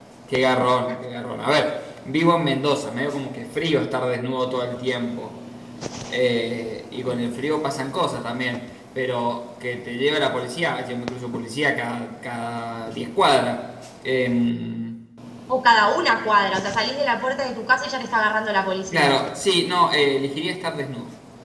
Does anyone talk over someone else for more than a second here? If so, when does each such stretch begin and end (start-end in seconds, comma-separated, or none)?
none